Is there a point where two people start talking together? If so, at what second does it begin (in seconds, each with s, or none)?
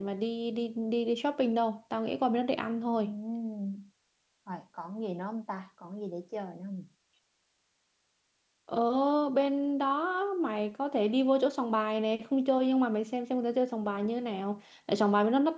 none